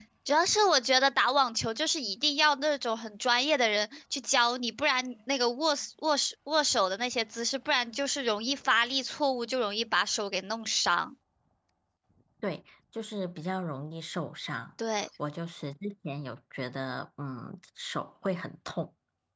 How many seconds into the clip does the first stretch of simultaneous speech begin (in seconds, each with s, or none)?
none